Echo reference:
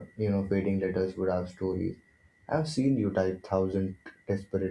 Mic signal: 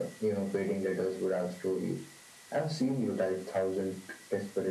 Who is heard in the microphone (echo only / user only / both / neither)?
echo only